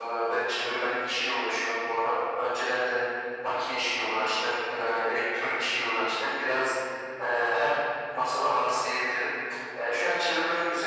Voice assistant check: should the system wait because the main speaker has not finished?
Yes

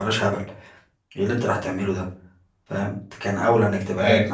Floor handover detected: No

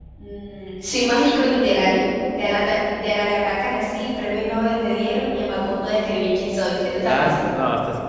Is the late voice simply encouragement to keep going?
No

